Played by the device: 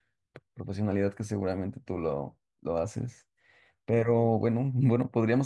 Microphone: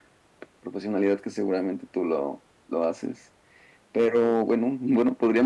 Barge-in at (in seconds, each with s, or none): none